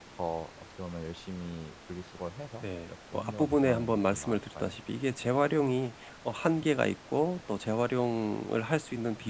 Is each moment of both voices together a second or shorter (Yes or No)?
No